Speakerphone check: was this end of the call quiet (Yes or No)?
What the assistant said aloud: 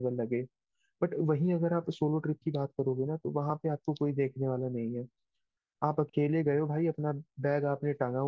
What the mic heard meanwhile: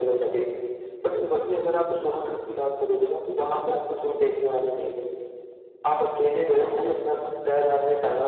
Yes